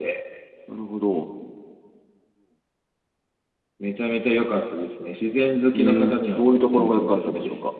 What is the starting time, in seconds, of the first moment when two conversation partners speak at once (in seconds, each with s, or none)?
5.7 s